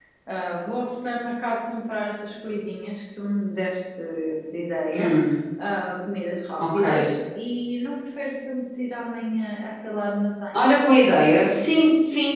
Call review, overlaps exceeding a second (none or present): none